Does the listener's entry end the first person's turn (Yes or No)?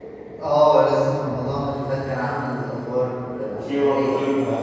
Yes